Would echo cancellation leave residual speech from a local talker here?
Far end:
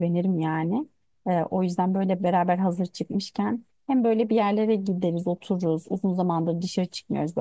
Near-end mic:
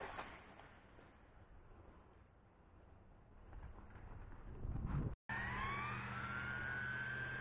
No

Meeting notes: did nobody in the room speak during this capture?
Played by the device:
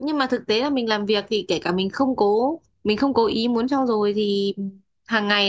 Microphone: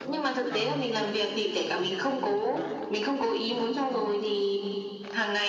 No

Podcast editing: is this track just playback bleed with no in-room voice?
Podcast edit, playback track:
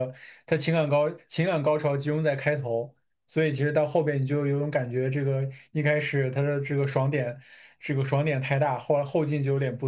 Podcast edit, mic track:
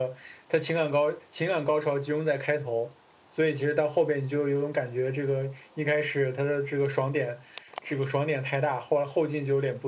Yes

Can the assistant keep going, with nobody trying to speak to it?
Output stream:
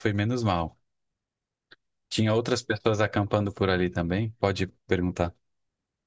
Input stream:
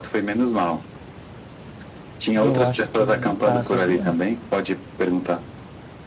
No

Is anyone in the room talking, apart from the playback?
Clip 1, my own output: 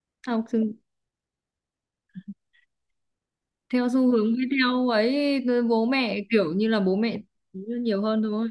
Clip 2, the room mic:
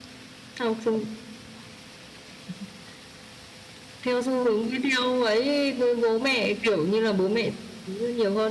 No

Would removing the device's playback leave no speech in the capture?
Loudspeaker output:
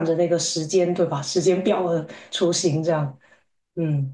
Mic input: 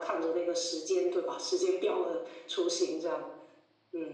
Yes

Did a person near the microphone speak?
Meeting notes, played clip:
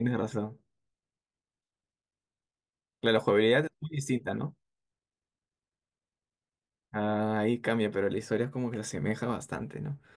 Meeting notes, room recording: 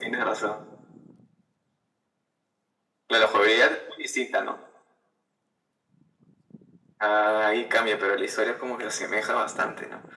No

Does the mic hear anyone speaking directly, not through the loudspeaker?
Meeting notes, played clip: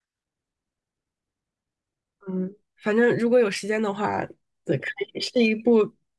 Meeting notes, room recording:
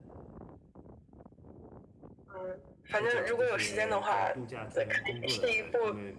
Yes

